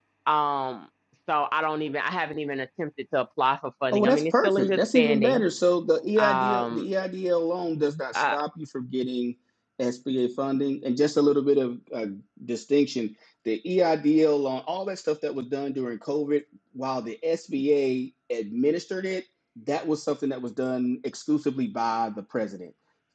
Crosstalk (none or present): present